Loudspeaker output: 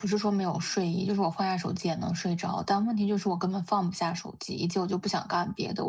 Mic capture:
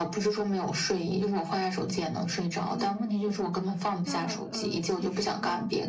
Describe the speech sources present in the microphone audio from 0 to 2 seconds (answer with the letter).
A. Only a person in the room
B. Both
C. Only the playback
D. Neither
C